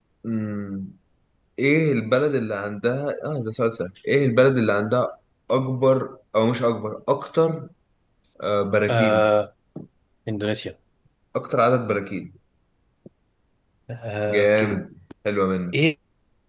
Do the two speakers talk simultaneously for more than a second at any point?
No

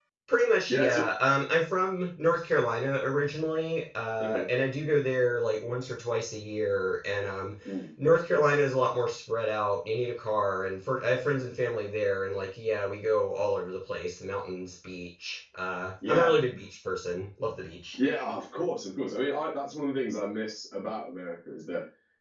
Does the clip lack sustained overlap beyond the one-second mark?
Yes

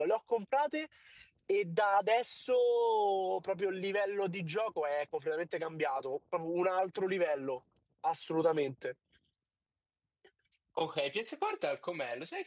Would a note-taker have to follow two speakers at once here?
No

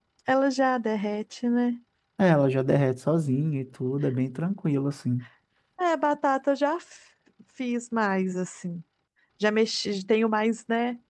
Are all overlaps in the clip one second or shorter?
Yes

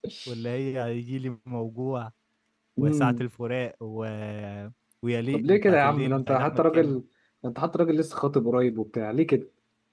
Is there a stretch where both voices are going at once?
Yes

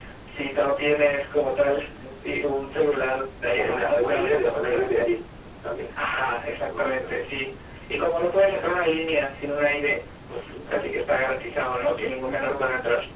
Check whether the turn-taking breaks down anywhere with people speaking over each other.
Yes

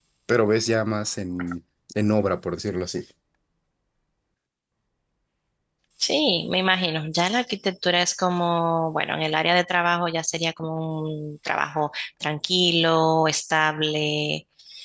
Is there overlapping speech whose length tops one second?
No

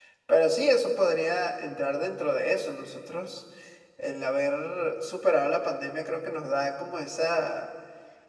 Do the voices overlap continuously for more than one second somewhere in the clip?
No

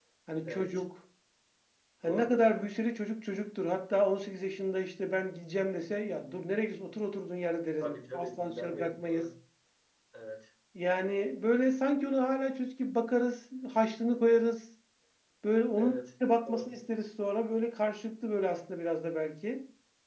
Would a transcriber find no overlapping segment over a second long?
No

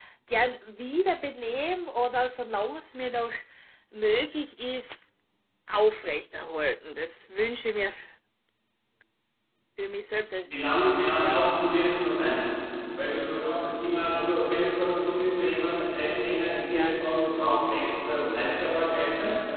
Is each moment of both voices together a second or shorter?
Yes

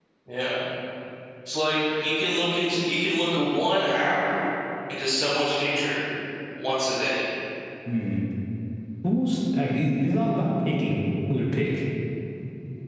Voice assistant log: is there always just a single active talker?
Yes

